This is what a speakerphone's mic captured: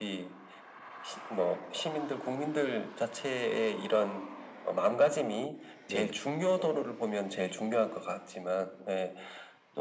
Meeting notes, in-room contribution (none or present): present